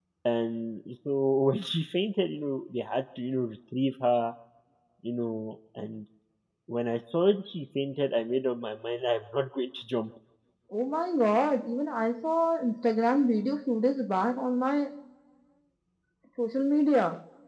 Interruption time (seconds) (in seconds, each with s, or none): none